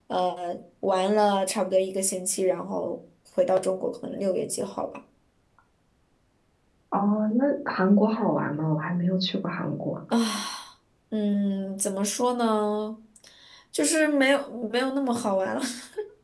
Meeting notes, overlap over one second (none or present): none